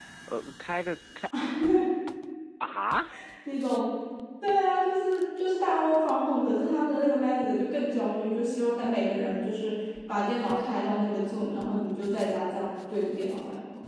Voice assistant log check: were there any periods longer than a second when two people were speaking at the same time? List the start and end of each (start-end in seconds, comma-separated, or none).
none